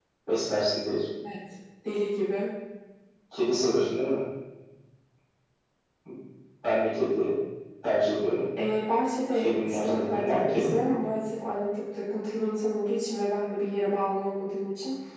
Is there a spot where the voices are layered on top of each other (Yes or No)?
Yes